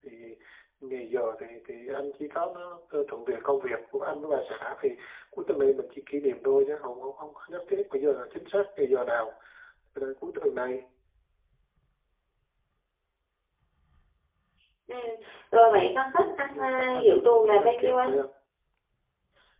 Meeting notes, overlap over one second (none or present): present